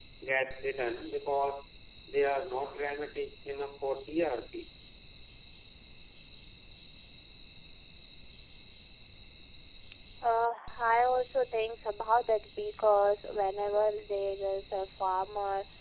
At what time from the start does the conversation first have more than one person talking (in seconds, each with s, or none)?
none